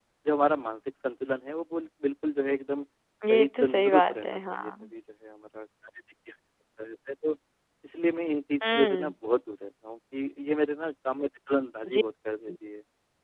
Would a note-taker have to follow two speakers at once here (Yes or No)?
Yes